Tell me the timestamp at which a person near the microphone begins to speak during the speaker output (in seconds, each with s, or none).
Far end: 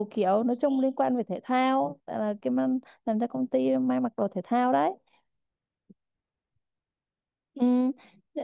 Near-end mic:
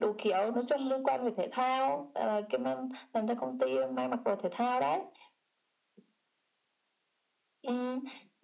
none